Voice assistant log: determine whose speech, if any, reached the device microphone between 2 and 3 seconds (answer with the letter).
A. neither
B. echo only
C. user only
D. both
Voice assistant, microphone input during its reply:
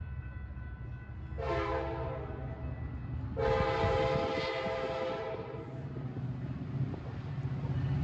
A